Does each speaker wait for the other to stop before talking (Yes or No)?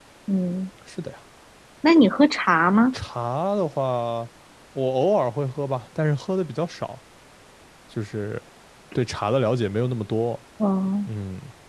Yes